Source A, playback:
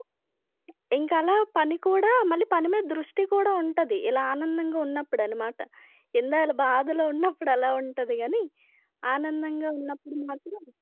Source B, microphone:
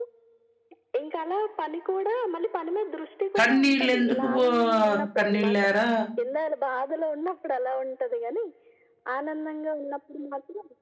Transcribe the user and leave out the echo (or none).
కన్నీళ్ళెందుకు ఓహ్! కన్నీళ్ళేరా.